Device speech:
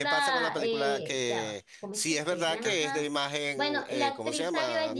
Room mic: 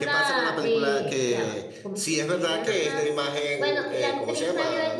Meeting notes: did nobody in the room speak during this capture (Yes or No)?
Yes